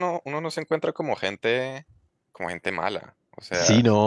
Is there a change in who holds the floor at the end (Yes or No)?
Yes